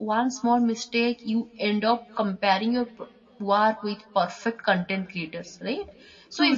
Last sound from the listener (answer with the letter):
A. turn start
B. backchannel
B